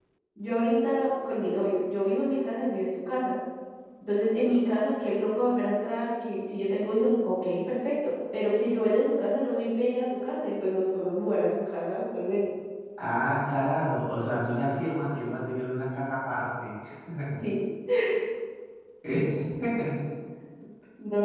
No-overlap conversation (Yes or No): Yes